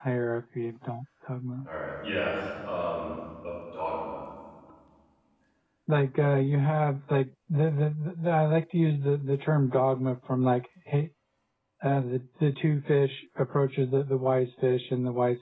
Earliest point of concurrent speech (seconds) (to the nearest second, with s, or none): none